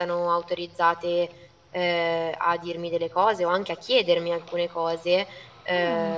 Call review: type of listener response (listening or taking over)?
listening